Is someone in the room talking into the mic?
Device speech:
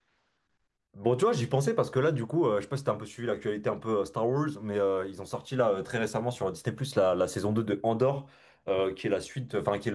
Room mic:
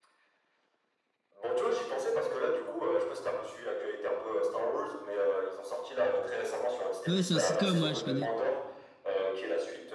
Yes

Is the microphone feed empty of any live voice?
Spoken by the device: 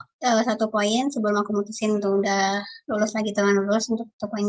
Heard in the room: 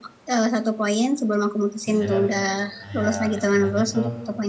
No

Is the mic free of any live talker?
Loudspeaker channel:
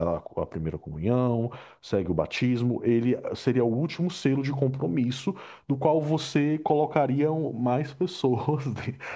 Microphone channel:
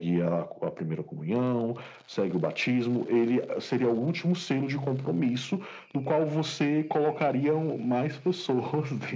Yes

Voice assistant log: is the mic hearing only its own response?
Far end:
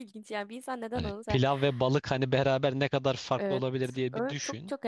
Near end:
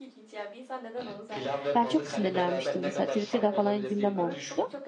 No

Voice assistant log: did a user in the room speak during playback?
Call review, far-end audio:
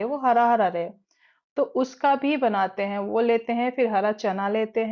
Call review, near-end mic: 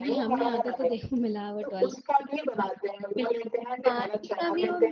Yes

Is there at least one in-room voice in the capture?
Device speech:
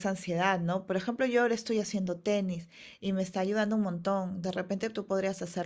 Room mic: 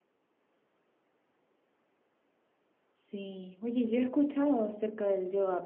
Yes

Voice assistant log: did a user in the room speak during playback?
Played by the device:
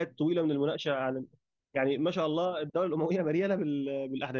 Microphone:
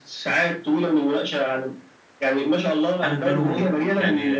Yes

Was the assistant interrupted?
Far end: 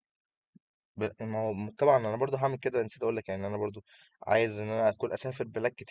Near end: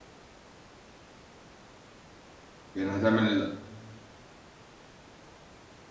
Yes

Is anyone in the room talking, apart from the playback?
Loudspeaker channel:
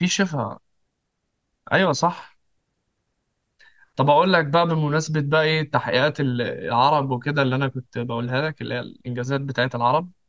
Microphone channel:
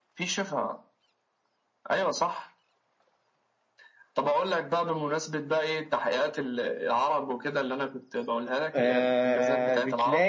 Yes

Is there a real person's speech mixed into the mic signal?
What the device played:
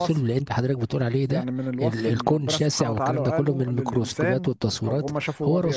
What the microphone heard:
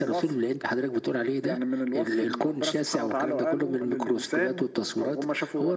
No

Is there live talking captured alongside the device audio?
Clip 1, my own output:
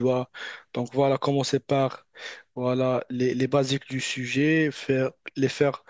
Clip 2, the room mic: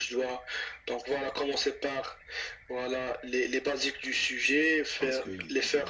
Yes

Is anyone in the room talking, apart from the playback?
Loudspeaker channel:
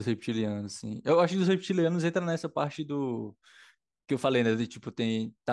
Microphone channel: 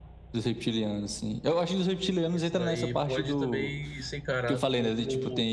Yes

